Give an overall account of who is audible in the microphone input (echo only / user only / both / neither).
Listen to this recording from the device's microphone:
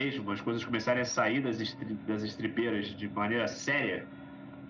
echo only